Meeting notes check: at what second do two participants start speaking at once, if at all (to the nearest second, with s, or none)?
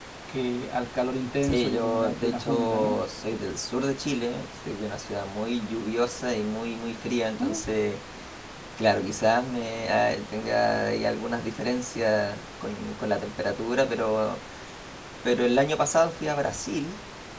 1 s